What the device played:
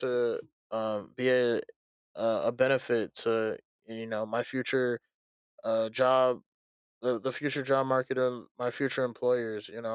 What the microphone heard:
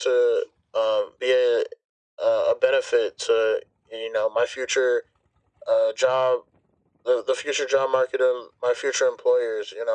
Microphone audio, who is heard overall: echo only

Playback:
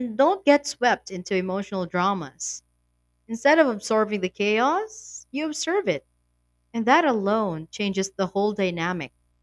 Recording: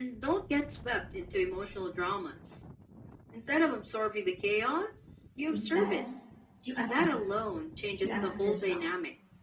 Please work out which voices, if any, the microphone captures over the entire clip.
both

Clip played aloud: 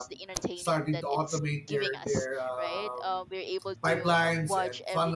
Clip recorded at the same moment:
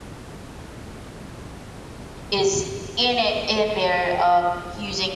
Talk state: user only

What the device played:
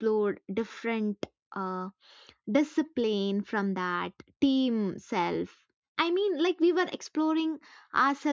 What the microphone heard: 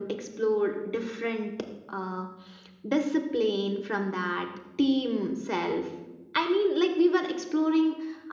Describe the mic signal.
echo only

